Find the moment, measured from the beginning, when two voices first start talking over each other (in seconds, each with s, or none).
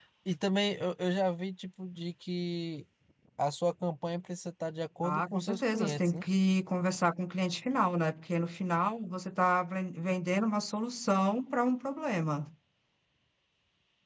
5.0 s